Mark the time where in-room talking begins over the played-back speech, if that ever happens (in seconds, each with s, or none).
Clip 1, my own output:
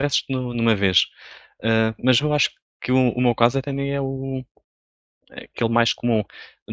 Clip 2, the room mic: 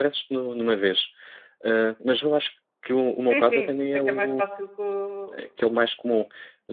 3.2 s